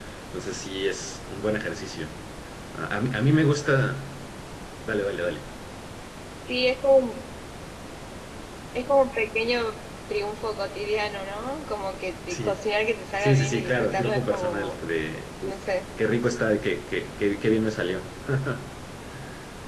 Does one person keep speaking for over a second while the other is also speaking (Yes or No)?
Yes